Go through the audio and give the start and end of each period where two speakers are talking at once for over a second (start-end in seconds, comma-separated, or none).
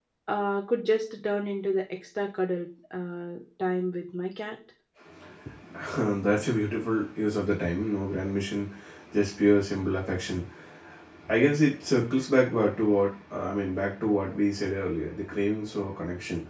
none